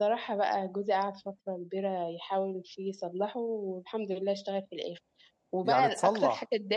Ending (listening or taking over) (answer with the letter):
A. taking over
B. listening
B